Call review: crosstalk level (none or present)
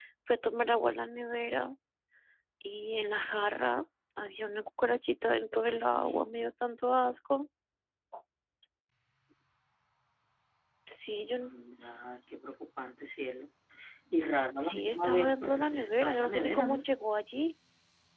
present